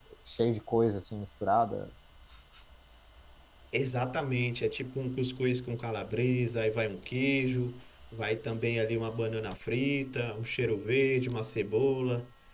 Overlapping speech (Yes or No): No